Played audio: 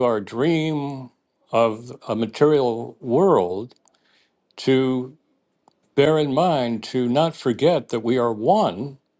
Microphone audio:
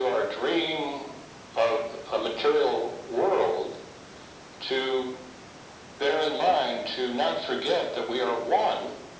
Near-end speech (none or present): none